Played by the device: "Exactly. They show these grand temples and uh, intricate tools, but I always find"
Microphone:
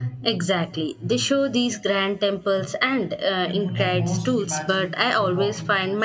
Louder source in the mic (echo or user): echo